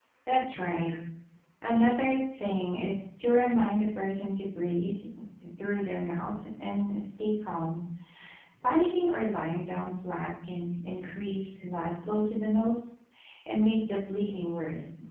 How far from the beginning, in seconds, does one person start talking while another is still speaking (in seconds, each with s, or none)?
none